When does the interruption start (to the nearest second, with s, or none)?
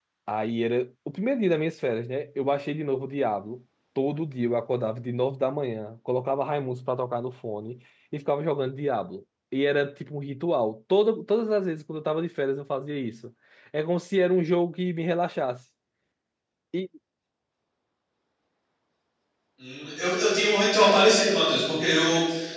none